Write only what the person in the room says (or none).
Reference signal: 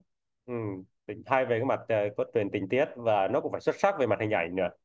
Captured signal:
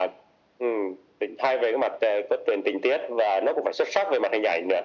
none